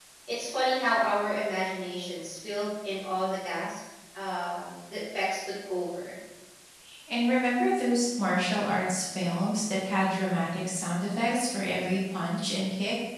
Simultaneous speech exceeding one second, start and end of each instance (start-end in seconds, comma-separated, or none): none